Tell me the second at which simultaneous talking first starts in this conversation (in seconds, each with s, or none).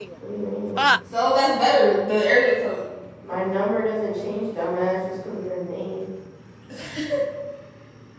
none